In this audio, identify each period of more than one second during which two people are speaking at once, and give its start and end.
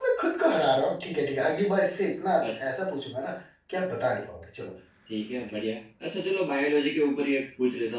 none

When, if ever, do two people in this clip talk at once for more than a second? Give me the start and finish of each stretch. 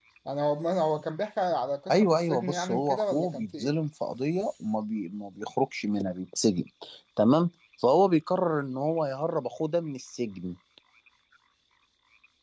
1.9-3.8

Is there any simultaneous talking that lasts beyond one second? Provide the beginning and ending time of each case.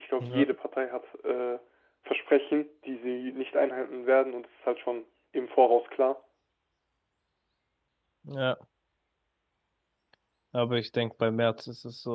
none

